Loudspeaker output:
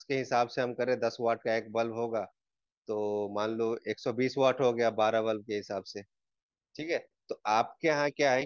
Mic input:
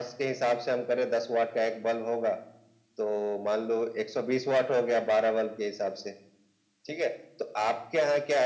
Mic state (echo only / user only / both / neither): echo only